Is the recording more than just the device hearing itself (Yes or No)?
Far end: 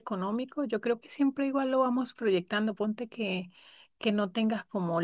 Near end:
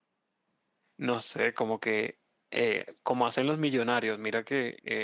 Yes